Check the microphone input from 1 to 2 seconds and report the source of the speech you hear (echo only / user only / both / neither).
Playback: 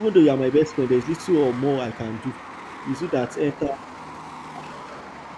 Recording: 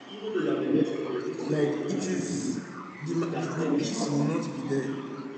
both